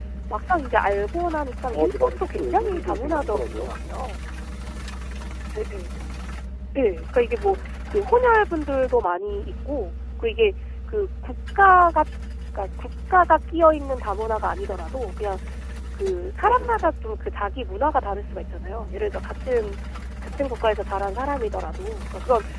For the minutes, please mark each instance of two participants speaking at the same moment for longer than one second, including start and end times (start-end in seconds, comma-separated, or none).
1.7-3.8